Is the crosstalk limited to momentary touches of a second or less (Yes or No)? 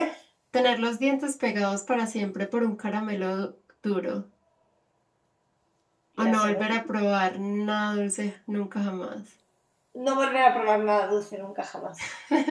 Yes